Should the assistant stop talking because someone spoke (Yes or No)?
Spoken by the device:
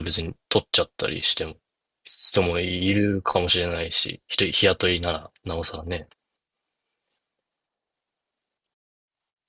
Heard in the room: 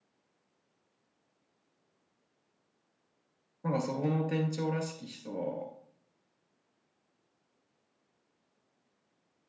Yes